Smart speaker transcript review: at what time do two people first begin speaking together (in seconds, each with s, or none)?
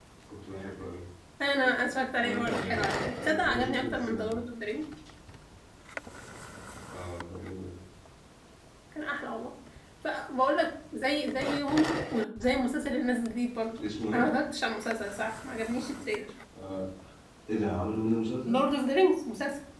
2.2 s